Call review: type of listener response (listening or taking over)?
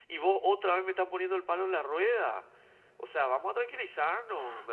taking over